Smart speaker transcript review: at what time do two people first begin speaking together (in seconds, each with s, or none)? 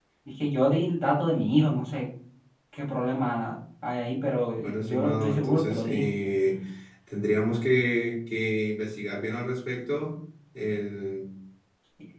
4.6 s